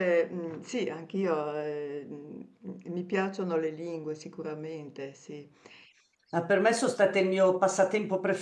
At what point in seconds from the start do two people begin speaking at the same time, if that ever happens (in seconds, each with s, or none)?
none